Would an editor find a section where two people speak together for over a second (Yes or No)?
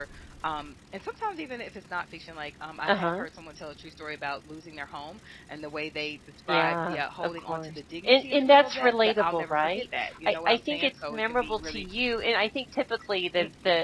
Yes